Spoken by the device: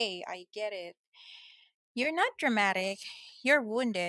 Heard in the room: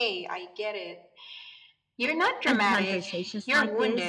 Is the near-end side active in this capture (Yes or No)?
Yes